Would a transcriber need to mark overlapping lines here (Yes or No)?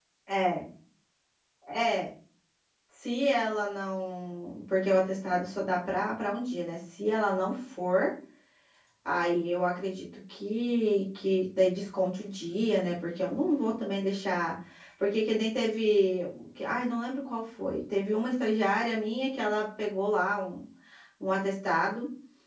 No